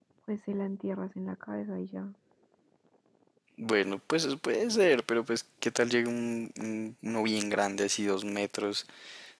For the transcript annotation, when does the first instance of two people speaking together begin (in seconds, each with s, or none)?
none